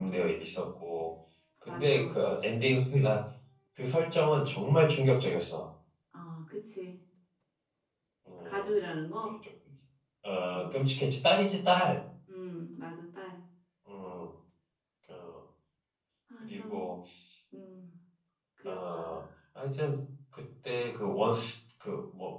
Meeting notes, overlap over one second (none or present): none